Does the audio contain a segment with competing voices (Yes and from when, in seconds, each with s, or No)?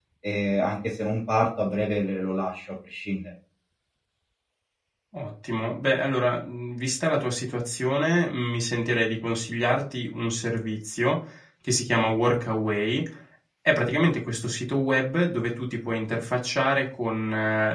No